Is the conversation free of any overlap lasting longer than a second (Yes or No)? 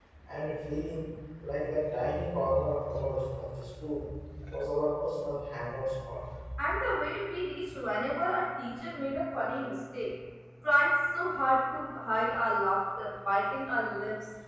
Yes